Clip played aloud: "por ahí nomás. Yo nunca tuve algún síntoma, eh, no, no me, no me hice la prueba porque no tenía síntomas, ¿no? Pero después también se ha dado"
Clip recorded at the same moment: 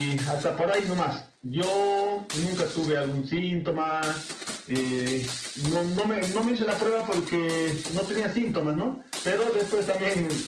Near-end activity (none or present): none